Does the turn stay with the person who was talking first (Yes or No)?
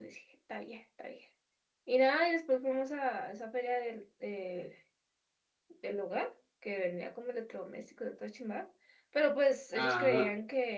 Yes